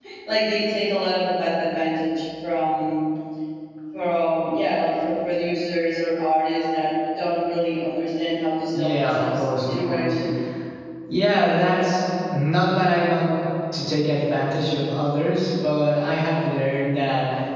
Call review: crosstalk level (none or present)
present